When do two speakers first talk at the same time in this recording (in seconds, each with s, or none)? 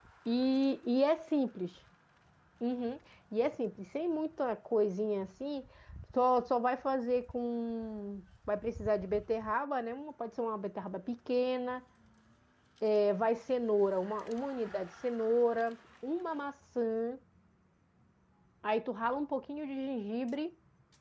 none